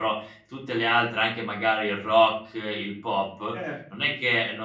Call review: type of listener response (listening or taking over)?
listening